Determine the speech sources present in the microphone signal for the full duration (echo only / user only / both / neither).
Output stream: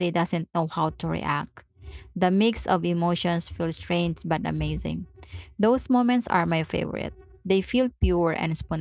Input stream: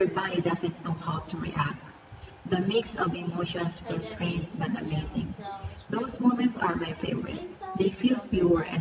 both